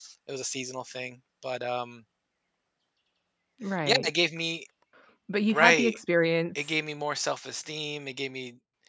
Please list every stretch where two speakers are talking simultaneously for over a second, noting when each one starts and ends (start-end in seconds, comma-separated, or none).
none